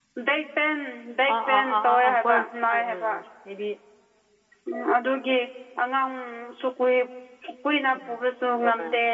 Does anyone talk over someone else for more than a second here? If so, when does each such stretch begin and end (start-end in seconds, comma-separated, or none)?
1.3-3.1